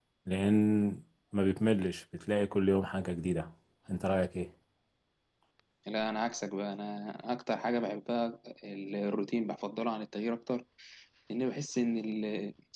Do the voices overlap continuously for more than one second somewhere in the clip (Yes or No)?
No